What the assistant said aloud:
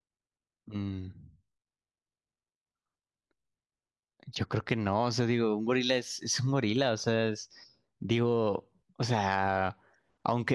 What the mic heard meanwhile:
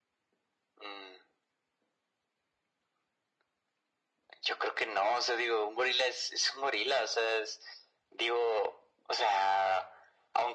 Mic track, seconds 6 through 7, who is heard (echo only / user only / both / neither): echo only